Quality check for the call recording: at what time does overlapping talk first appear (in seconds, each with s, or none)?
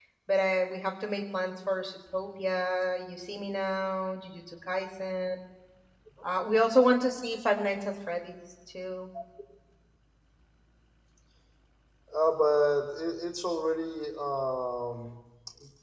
none